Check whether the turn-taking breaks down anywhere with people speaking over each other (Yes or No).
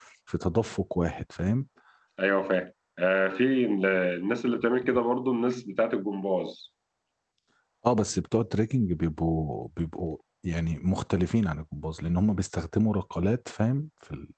No